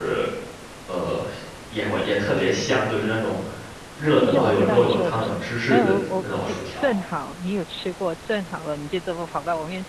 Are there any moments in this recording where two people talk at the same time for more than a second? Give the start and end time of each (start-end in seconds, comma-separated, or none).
4.2-6.9